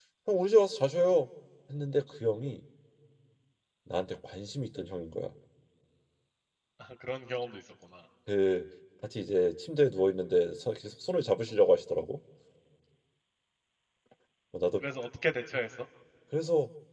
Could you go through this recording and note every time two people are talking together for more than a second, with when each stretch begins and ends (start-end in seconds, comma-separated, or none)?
none